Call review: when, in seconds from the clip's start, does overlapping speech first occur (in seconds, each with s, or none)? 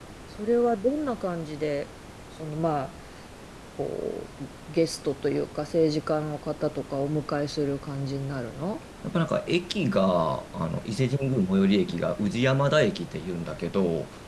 none